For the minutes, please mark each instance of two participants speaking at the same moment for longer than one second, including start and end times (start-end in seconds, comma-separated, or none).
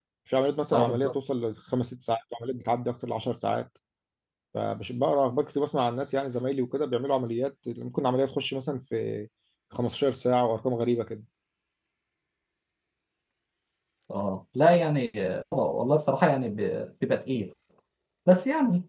none